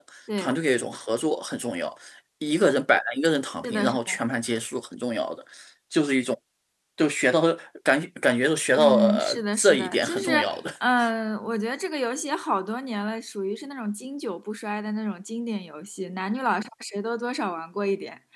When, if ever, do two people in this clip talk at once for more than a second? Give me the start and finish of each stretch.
8.8-10.6

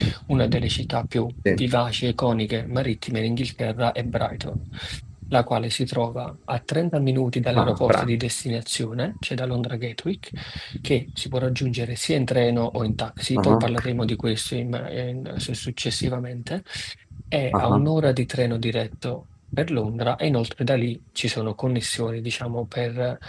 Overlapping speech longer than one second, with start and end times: none

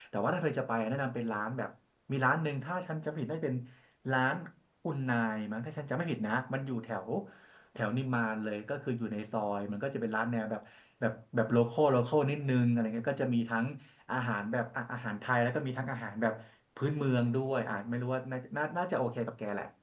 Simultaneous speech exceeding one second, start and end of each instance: none

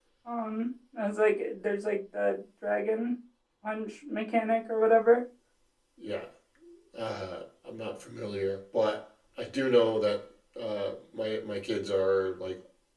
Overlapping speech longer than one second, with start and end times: none

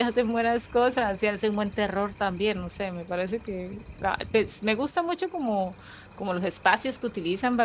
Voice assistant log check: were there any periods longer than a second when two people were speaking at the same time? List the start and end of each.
none

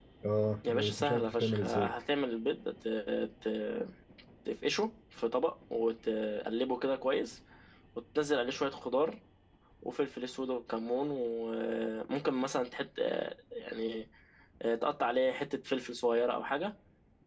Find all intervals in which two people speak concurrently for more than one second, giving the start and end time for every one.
0.7-1.9

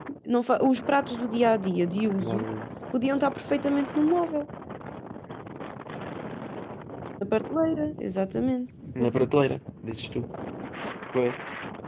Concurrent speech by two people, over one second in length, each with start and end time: none

